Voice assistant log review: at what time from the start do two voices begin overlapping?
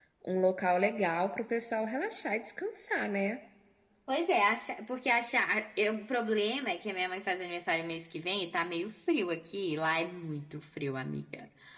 none

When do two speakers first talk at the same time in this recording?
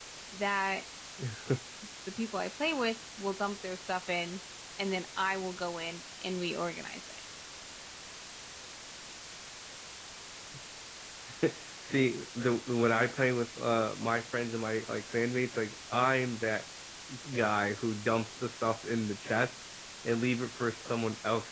none

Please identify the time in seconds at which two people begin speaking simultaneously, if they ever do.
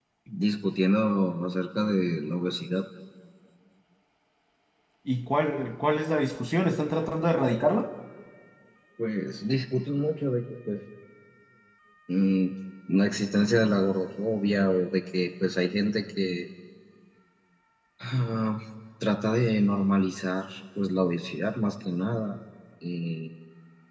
none

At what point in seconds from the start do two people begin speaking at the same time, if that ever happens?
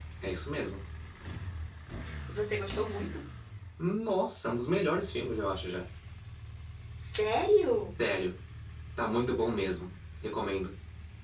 none

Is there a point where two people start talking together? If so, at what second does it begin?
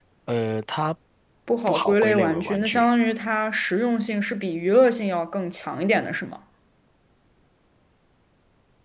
1.7 s

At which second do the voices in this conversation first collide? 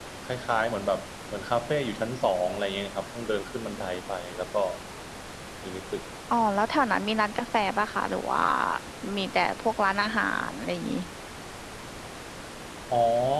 none

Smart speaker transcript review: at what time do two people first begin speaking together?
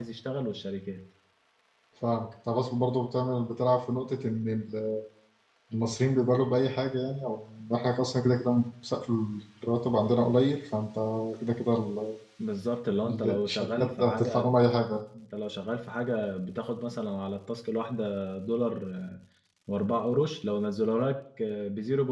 13.0 s

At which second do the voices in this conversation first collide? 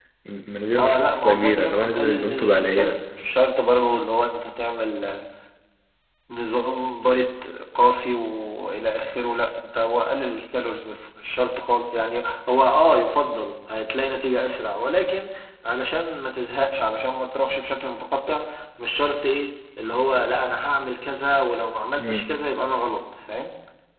0.8 s

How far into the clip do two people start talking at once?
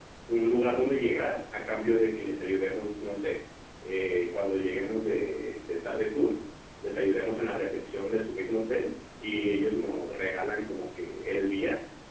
none

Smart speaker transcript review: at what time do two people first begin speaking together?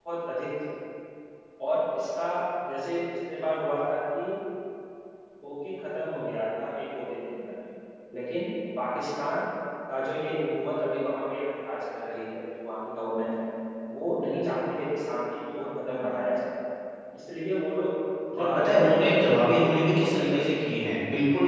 18.3 s

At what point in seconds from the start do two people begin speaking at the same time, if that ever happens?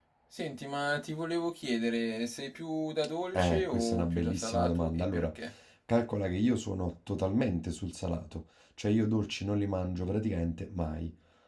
3.3 s

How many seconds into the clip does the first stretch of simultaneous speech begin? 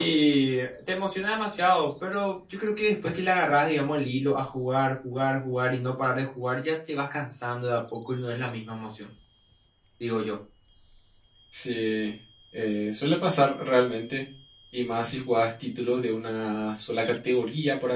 none

